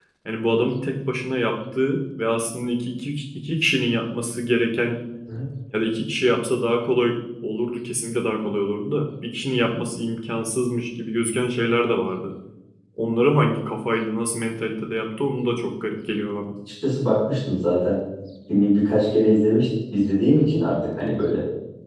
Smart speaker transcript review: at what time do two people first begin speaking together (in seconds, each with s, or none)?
none